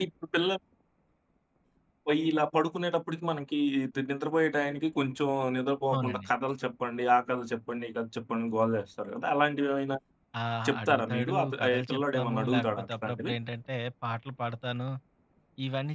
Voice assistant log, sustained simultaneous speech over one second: present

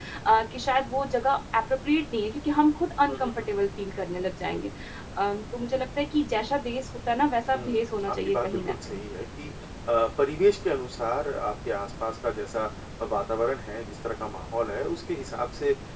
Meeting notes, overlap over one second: present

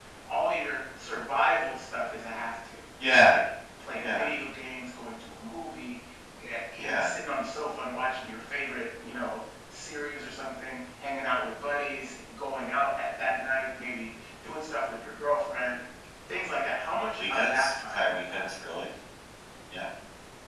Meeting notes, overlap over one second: present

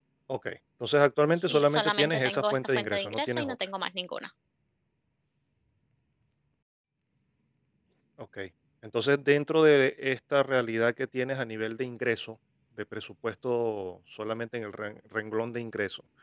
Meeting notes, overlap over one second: present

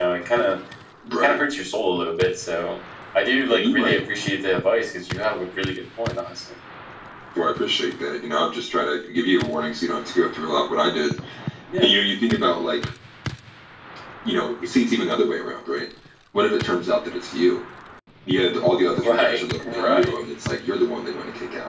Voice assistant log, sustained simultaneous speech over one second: present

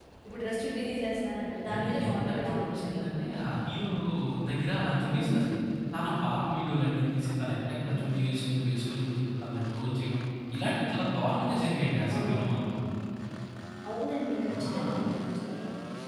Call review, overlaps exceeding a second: present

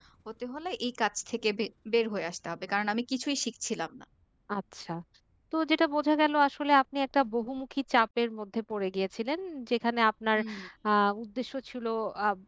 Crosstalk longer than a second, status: none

